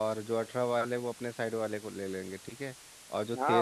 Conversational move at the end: listening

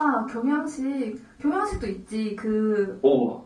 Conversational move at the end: listening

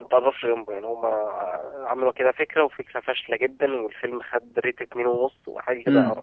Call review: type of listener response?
taking over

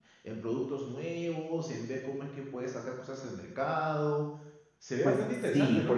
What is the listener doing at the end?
taking over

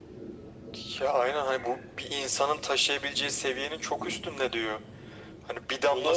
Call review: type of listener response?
listening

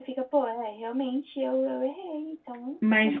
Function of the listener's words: taking over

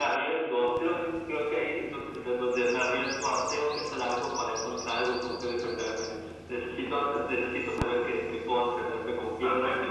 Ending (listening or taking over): taking over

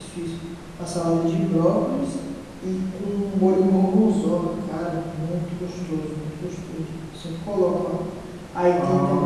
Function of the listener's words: listening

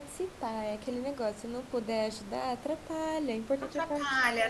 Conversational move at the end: taking over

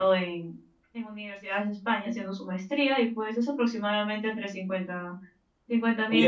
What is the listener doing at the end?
taking over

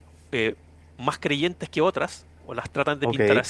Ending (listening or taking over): listening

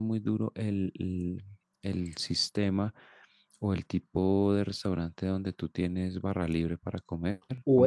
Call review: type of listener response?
taking over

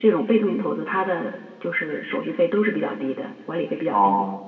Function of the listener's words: taking over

